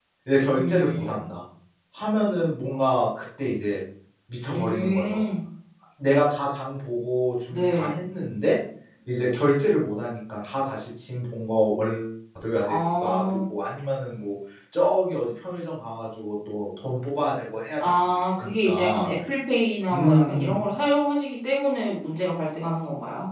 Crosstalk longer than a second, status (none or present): present